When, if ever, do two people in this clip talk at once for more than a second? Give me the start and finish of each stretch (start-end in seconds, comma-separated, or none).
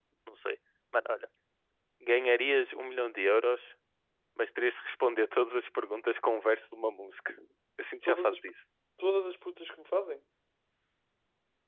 none